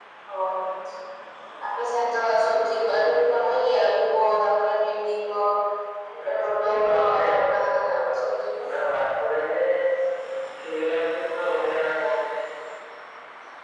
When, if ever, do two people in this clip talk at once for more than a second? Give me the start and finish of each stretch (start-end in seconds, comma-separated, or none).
6.2-8.2